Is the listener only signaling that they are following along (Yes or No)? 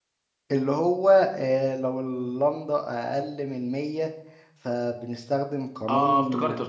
No